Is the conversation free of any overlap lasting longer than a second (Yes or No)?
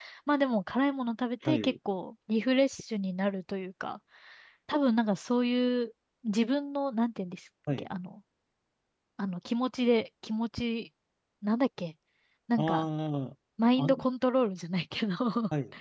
Yes